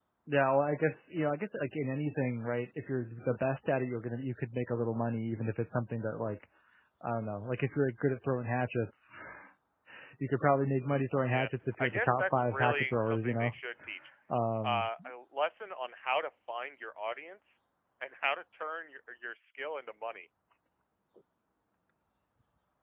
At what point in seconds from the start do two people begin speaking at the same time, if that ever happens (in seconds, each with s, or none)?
11.2 s